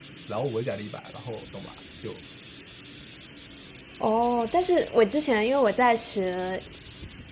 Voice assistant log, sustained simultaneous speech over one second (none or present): none